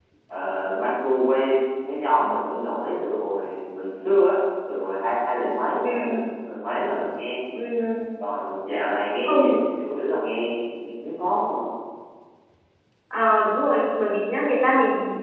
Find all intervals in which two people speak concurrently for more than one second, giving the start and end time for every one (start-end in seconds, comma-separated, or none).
none